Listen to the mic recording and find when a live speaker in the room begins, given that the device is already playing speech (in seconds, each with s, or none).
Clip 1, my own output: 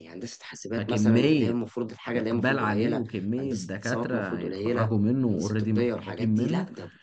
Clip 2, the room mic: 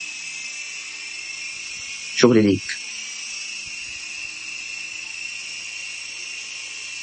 2.1 s